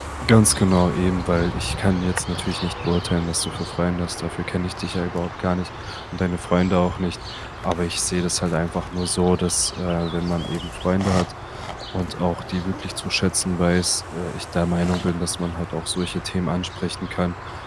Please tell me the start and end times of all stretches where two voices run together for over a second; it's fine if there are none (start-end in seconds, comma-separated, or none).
none